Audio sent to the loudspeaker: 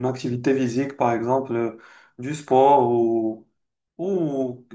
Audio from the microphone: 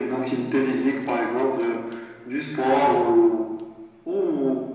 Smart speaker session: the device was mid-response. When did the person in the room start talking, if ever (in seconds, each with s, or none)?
none